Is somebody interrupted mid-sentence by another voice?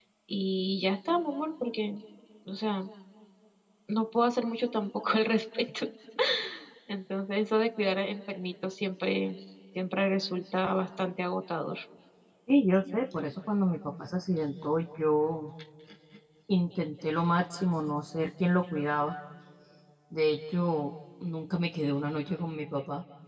No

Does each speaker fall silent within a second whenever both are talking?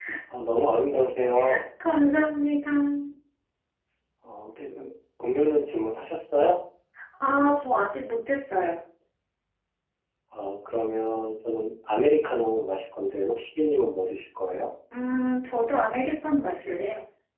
Yes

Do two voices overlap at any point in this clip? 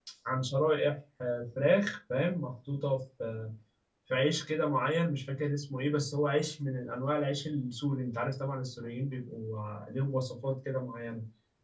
No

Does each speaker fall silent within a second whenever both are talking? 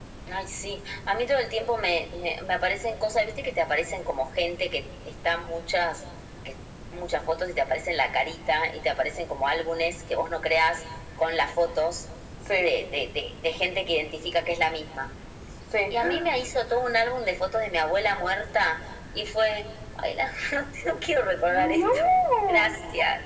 No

